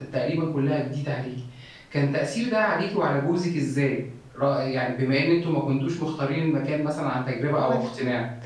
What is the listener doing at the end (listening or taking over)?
taking over